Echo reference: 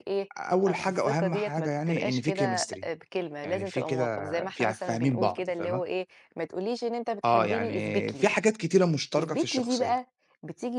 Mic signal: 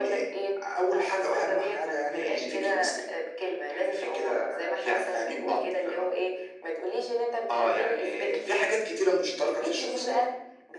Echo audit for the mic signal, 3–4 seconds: echo only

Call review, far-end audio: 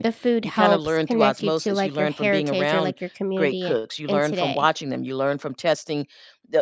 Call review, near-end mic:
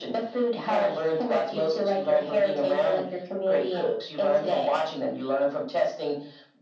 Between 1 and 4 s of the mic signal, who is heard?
echo only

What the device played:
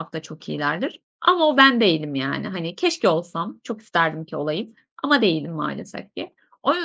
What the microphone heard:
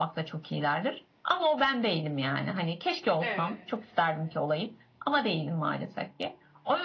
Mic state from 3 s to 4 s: both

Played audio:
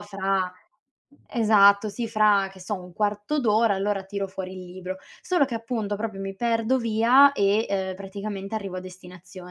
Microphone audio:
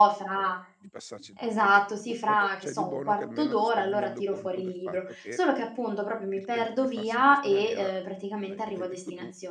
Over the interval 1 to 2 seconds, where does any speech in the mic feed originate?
both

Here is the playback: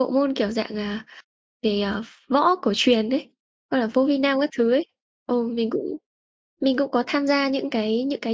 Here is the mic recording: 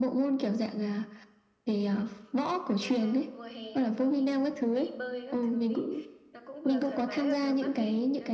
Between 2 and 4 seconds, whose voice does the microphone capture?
both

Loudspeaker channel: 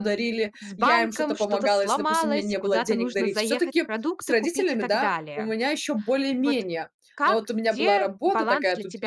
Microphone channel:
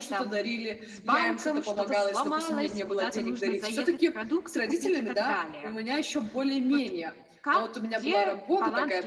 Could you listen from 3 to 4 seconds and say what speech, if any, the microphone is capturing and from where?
echo only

